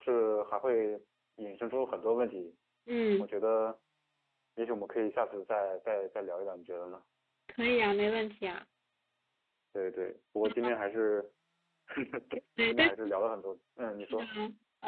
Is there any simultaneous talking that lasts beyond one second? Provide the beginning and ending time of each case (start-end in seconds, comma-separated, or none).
none